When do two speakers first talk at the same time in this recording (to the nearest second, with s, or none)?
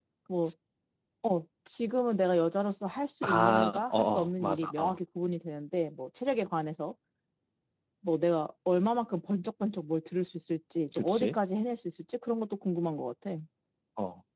3 s